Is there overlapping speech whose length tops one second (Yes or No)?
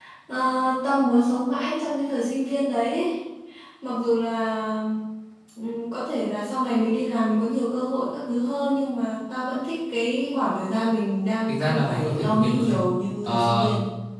Yes